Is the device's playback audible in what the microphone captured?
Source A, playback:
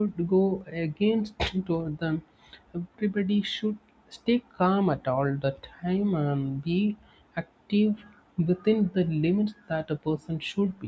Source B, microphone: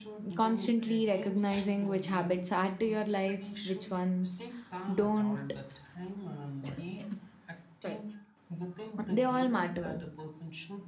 Yes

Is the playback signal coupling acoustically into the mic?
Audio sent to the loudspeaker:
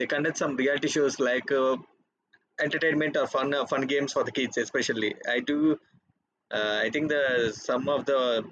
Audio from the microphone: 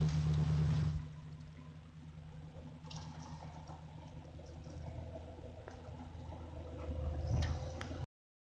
No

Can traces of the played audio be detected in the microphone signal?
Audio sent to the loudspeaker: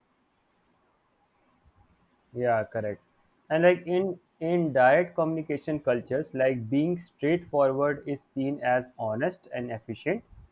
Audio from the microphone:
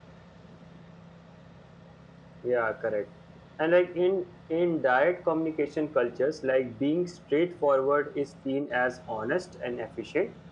Yes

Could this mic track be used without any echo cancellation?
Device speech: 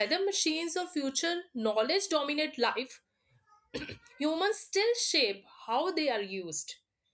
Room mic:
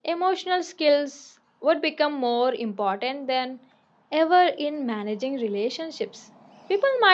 Yes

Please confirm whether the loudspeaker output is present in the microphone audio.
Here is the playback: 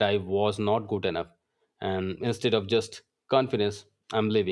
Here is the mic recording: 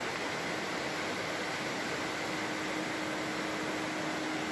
No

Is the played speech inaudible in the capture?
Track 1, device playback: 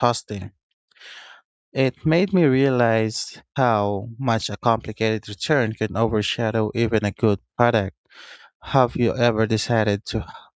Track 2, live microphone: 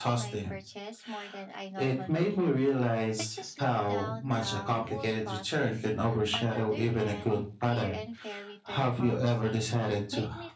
No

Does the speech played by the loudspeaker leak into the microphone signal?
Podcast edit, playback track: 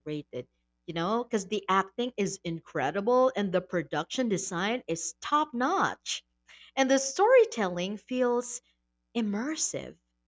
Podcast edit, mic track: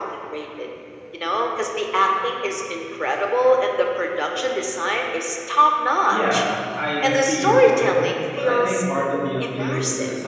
Yes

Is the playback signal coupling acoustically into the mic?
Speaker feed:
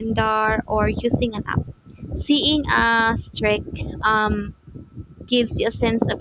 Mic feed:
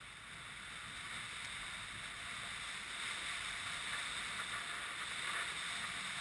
No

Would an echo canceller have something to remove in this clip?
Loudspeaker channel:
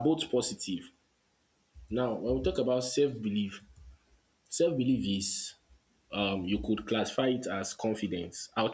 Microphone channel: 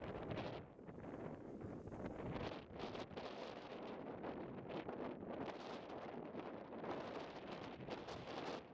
No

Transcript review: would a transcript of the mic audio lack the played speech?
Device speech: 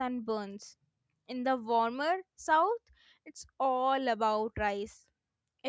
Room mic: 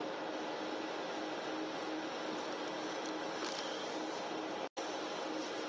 Yes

